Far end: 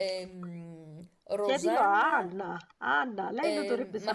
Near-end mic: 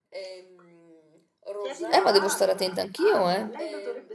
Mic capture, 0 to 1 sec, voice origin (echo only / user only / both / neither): echo only